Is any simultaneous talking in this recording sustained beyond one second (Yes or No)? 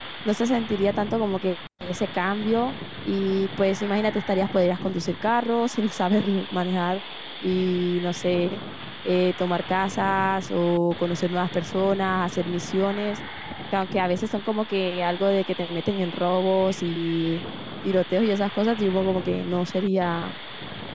No